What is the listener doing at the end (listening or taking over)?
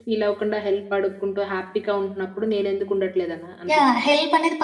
taking over